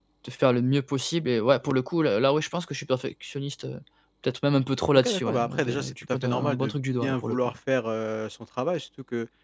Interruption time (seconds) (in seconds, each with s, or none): 5.0 s